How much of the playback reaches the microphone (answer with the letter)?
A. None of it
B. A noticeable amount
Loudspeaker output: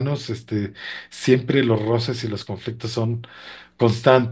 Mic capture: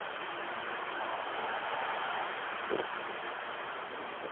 A